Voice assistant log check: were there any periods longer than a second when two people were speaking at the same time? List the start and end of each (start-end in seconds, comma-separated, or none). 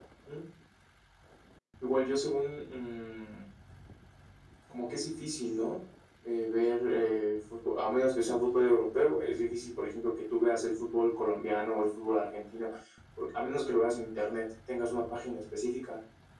none